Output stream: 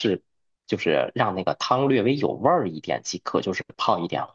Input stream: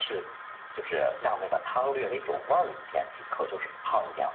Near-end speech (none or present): none